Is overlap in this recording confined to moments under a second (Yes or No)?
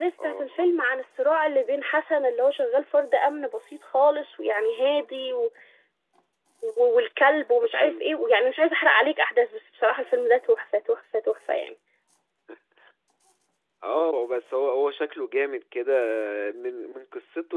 Yes